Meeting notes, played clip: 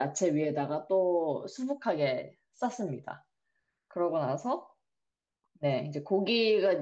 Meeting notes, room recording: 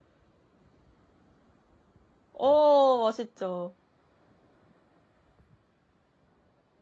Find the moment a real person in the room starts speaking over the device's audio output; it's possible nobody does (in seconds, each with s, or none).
2.3 s